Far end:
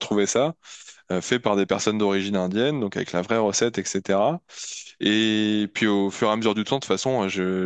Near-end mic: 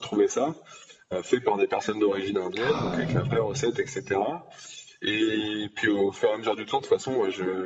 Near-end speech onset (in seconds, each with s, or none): 2.6 s